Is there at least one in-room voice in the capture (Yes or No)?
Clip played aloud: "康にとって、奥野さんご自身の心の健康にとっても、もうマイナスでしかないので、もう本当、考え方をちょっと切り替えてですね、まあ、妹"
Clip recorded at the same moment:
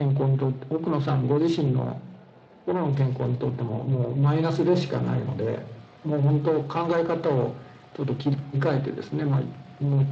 No